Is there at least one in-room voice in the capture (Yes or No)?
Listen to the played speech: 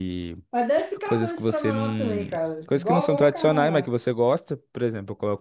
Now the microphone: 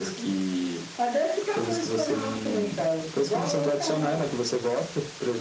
No